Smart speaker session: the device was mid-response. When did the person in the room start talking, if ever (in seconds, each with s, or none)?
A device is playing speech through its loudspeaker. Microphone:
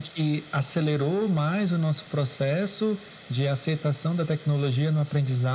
none